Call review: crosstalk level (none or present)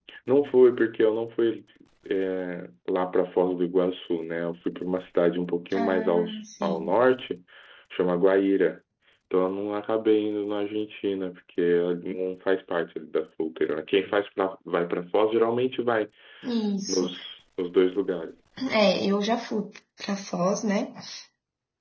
present